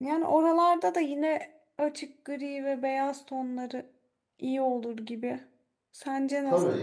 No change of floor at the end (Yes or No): No